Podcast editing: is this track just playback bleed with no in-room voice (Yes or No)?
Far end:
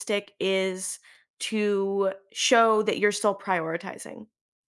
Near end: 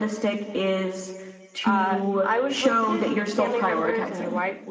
No